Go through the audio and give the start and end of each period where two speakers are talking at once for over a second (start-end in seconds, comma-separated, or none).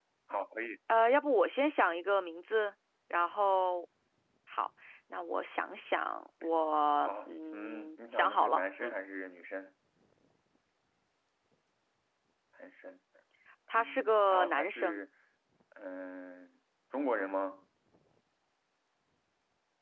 7.0-8.9, 13.7-15.0